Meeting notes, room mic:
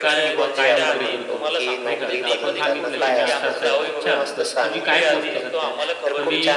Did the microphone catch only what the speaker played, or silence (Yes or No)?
No